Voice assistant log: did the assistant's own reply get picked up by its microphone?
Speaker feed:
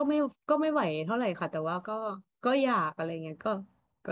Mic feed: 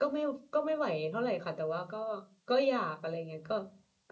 Yes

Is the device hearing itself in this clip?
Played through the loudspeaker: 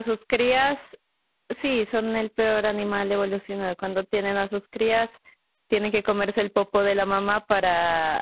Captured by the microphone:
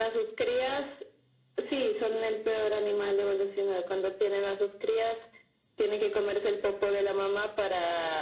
Yes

